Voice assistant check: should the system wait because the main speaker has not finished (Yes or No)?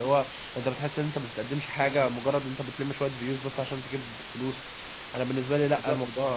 No